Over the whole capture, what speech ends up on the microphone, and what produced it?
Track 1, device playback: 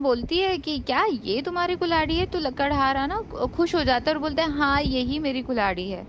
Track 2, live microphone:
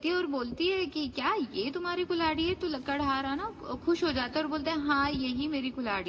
echo only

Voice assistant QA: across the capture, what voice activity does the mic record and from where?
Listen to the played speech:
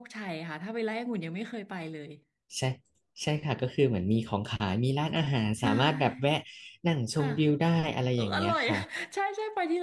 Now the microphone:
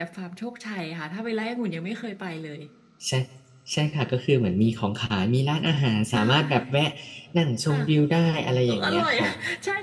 echo only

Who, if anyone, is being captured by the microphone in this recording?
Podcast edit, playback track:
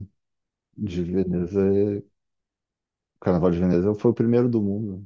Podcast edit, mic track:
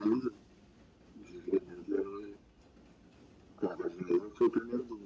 echo only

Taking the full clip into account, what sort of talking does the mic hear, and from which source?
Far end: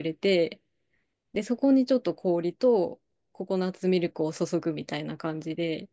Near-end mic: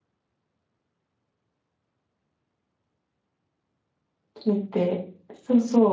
user only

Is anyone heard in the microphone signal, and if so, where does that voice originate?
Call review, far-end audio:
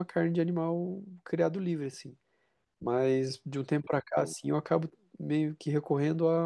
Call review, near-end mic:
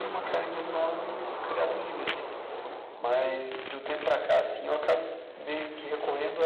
echo only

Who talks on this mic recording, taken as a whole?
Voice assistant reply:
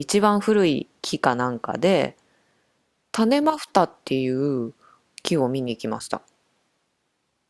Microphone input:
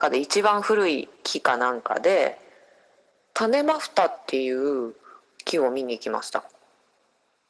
echo only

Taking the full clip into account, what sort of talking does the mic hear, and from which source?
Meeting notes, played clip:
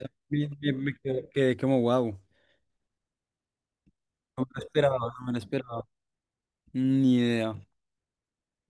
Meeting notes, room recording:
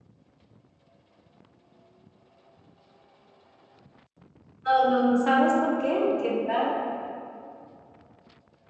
user only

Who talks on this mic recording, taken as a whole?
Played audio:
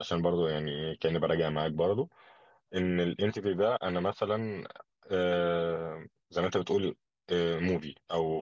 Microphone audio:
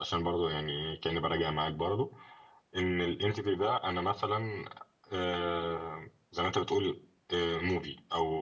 echo only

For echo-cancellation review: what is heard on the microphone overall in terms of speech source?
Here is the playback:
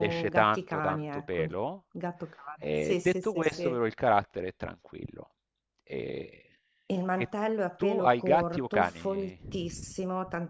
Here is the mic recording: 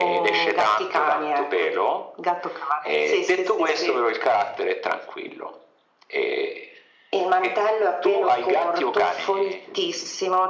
echo only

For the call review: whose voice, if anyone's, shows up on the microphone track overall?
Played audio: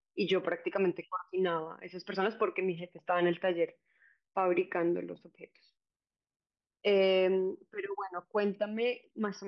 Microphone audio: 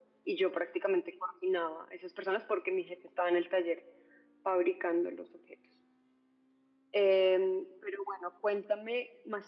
echo only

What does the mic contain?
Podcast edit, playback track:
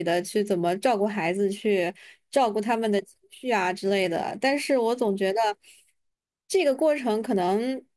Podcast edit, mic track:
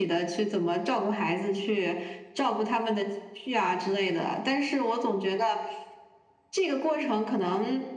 echo only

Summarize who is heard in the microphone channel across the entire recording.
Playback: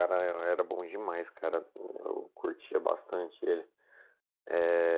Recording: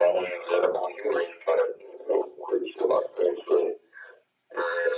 echo only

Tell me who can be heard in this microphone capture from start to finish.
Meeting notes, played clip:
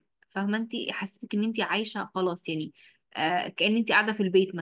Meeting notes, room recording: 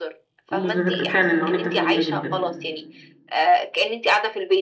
both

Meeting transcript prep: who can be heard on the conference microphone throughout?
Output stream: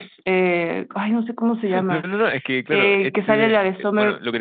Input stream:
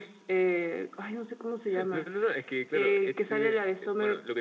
echo only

